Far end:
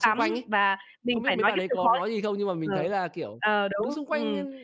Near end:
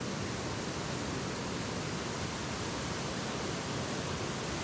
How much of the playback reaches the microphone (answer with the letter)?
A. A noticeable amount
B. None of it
B